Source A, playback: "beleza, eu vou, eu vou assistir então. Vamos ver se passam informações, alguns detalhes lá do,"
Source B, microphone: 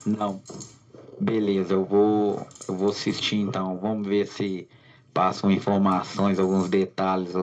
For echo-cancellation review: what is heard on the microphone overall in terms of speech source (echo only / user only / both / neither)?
echo only